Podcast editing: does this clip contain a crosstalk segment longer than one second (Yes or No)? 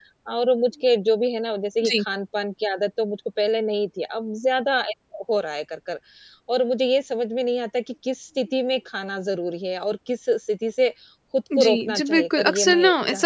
Yes